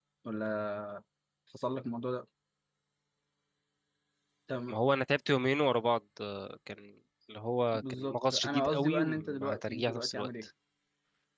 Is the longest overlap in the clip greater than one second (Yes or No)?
Yes